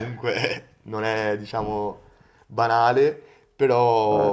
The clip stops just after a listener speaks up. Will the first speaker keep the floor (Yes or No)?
Yes